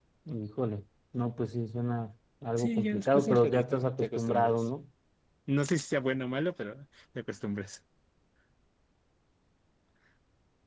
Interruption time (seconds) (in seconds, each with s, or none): 2.6 s